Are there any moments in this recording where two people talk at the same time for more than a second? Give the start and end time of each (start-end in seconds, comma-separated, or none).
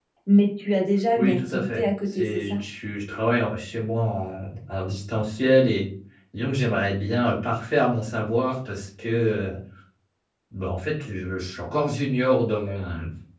1.2-2.6